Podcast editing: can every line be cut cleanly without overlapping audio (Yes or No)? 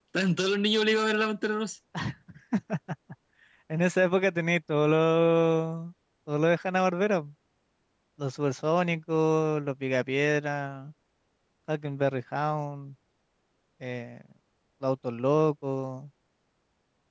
Yes